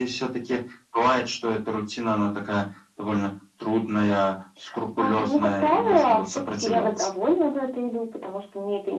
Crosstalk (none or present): present